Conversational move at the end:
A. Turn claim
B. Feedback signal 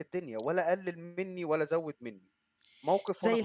A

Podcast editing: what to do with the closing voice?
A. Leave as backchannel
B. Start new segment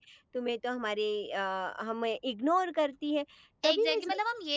B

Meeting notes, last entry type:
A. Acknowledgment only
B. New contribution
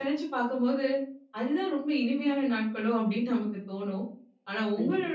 A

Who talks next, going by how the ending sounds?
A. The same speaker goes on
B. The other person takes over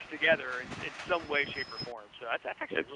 A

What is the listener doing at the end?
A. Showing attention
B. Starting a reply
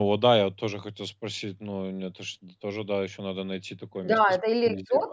B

